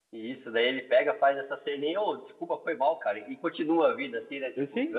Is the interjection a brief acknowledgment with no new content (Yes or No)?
No